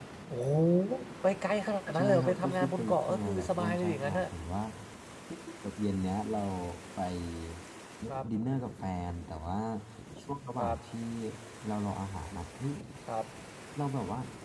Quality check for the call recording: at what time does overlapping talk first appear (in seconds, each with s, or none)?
1.9 s